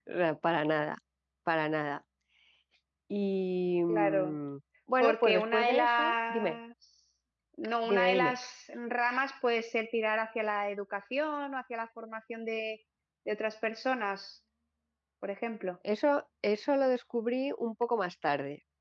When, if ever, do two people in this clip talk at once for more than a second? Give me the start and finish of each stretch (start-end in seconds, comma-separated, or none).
5.0-6.6